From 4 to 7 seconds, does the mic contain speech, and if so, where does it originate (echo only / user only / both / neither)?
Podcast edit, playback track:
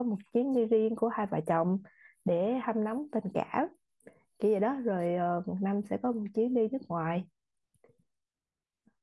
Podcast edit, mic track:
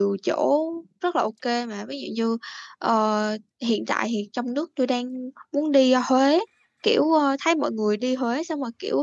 user only